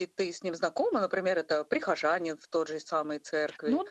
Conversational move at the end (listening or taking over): taking over